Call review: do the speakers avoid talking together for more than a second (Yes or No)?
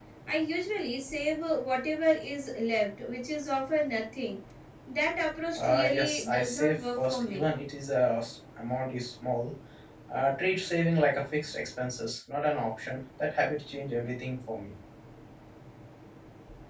No